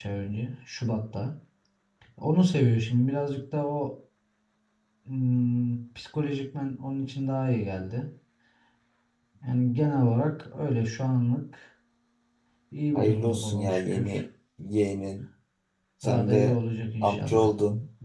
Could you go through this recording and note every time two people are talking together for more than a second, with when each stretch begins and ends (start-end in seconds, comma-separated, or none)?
12.9-14.2